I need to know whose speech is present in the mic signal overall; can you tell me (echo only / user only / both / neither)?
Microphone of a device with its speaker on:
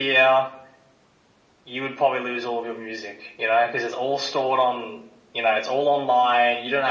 echo only